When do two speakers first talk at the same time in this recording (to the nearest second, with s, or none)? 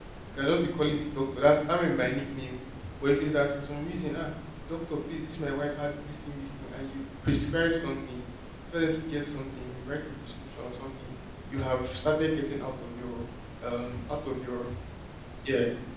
none